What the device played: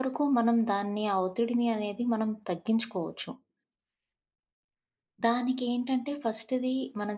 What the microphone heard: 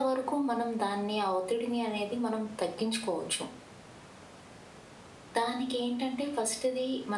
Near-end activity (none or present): none